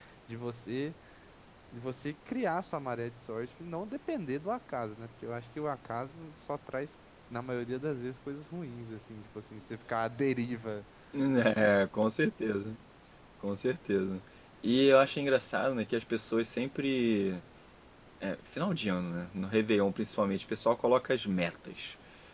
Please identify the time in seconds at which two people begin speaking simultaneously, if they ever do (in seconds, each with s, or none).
none